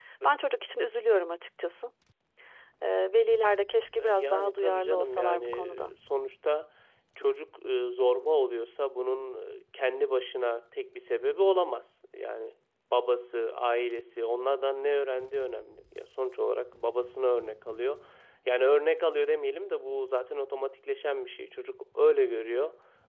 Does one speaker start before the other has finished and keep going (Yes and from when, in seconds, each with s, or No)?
Yes, from 4.0 s